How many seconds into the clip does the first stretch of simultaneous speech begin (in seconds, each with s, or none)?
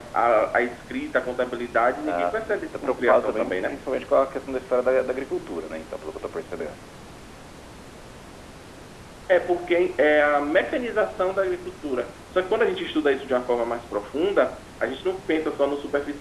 2.0 s